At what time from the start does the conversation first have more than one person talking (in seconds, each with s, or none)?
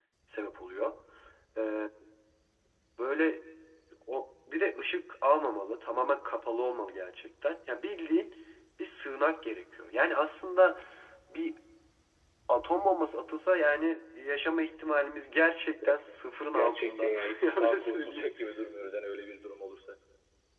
16.6 s